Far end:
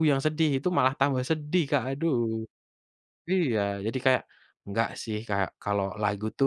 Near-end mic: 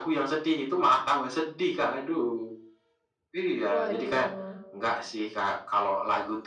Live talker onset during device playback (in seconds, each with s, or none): 3.7 s